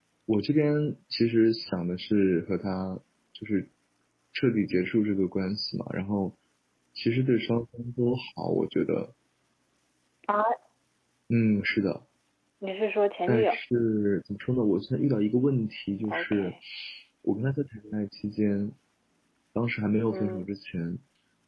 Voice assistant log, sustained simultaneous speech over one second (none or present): none